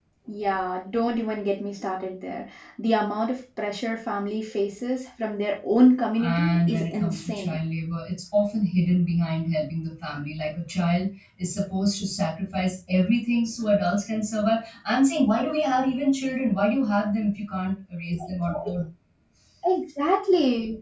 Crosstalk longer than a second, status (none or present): present